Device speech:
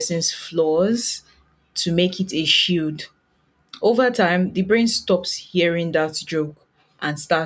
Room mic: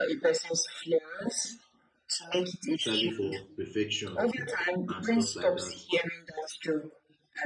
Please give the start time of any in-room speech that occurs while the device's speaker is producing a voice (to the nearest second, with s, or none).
3 s